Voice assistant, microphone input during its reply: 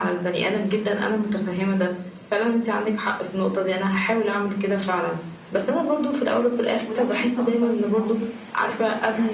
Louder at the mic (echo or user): echo